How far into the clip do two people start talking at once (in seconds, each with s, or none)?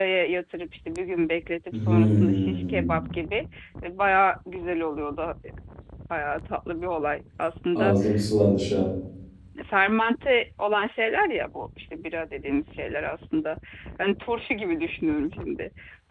1.7 s